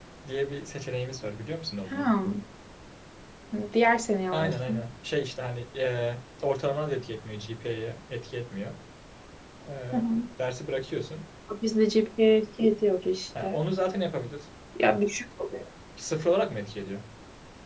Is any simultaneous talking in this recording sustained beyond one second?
No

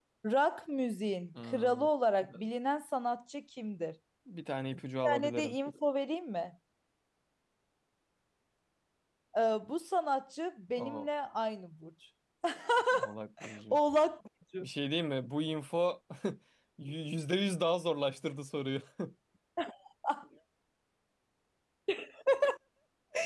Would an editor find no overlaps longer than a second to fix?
Yes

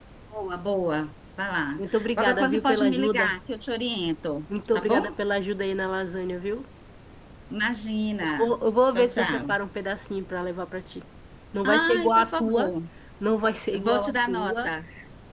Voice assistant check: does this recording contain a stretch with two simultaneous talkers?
Yes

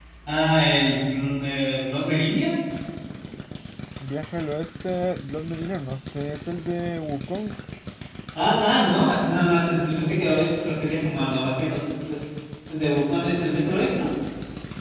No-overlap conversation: Yes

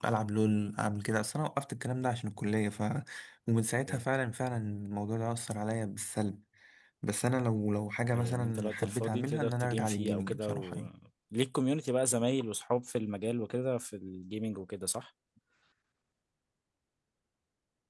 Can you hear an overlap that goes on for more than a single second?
Yes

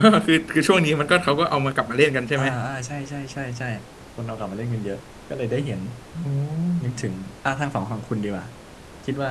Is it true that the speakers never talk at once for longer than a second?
Yes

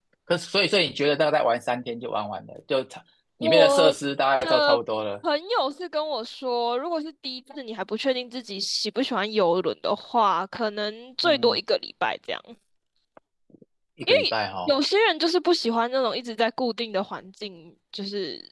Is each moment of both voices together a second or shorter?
Yes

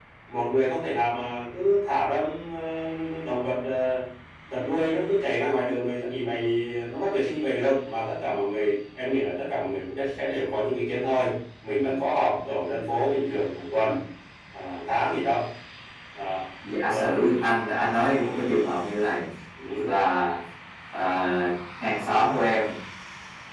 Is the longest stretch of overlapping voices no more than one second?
Yes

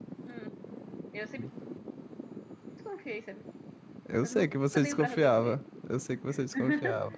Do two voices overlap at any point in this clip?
Yes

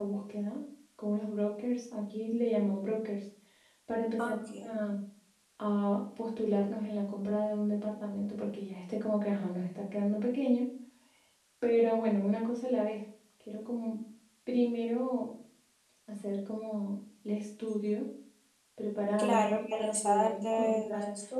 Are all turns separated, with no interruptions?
No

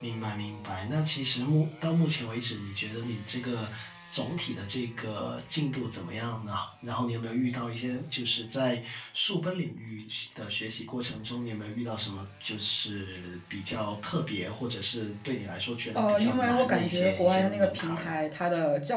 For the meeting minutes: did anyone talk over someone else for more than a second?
Yes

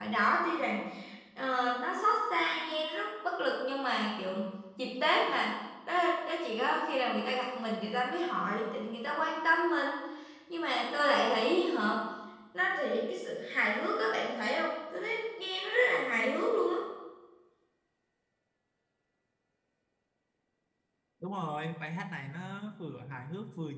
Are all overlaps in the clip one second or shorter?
Yes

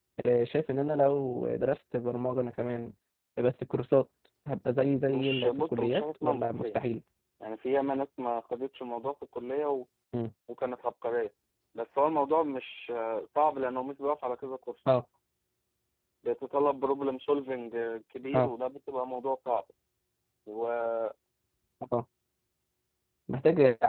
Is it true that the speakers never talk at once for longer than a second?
No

